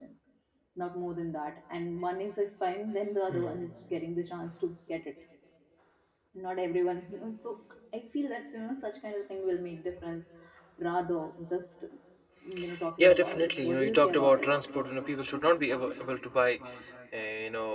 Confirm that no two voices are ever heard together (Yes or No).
No